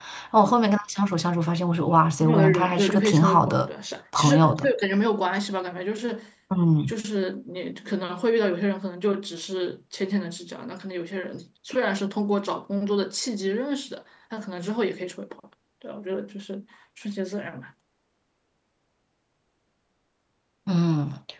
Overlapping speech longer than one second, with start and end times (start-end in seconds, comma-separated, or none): 2.2-3.7